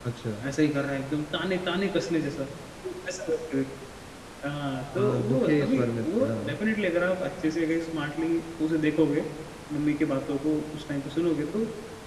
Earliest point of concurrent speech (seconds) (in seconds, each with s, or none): 5.0 s